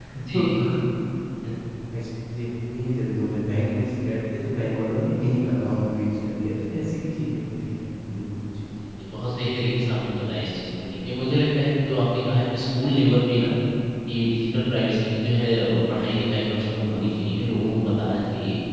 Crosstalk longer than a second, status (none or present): none